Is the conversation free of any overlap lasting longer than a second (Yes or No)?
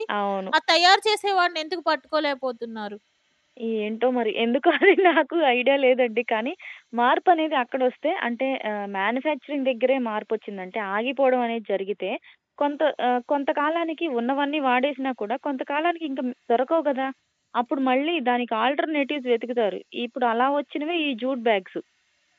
Yes